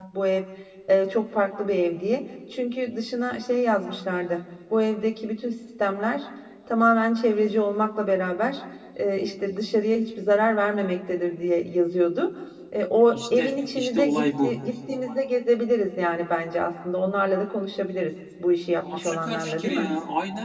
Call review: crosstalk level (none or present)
present